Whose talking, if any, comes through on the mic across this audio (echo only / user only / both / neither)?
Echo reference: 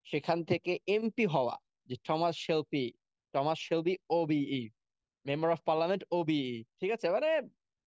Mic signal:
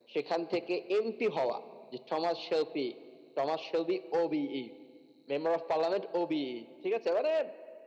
echo only